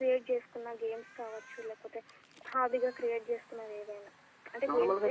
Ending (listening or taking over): taking over